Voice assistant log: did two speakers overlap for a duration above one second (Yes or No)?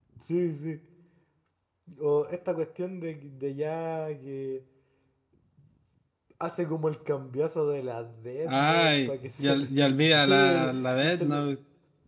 Yes